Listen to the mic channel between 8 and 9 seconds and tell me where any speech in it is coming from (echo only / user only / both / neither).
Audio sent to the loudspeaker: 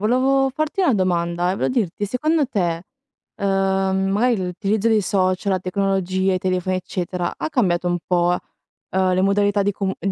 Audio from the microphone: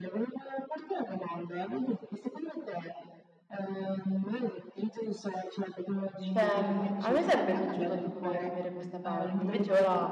both